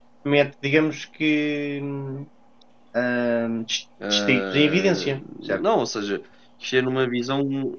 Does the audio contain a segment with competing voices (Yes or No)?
Yes